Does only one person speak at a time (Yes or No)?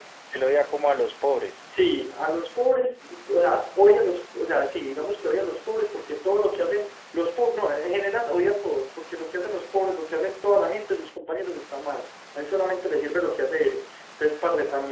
Yes